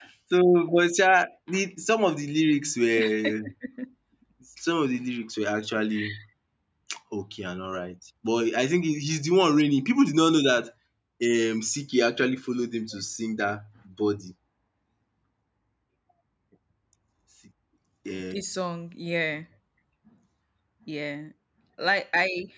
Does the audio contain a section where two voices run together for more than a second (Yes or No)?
No